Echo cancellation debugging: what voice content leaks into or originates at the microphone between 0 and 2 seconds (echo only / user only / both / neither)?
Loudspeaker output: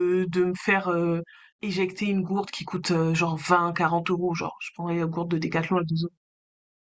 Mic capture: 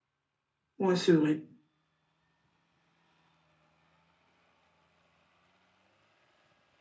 user only